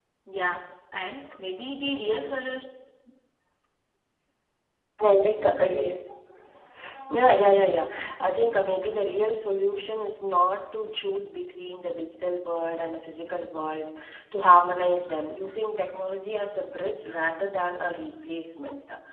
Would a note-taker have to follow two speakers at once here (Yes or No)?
No